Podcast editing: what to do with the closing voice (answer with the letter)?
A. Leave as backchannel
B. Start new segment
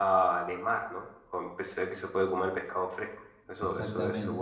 B